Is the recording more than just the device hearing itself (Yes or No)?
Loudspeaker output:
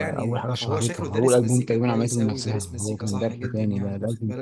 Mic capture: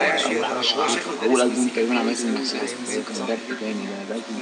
Yes